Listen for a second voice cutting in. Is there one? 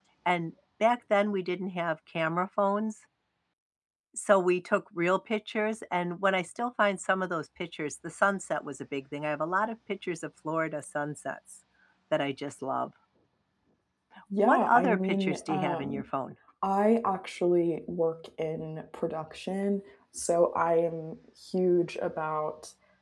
Yes, from 14.4 s

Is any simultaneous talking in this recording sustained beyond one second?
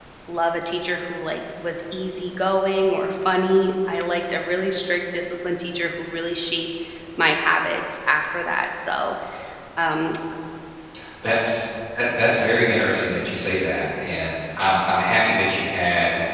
No

